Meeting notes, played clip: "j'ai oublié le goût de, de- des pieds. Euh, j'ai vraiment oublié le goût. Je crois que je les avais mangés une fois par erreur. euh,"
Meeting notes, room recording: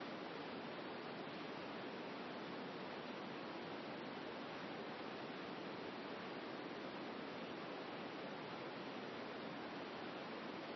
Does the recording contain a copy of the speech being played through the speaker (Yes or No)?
No